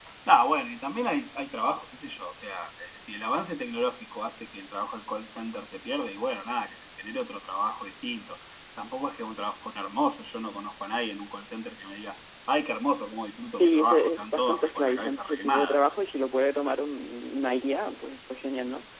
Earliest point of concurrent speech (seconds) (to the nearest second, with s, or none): 14 s